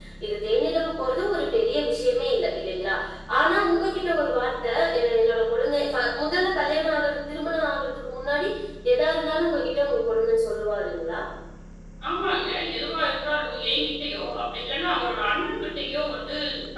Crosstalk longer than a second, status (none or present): none